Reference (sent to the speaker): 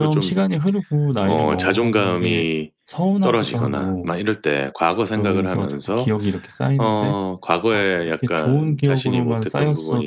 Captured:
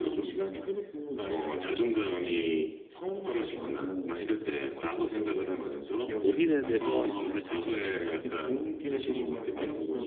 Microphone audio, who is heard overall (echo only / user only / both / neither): both